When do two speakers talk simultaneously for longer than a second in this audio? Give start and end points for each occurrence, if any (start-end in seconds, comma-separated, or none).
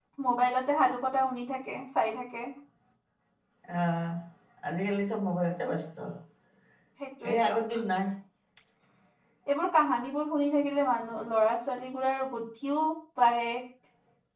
none